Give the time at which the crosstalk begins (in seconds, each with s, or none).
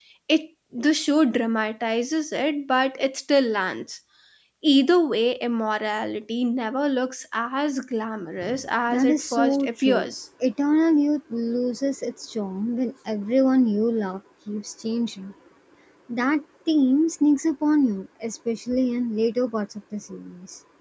8.9 s